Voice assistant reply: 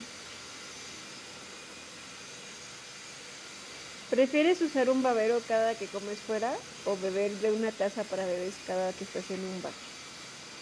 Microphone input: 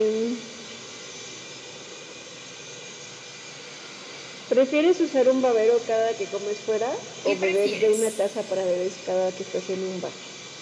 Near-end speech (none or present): present